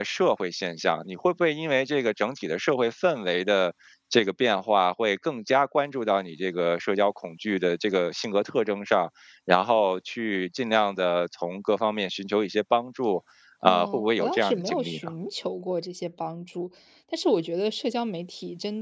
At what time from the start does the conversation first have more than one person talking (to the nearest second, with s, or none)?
14 s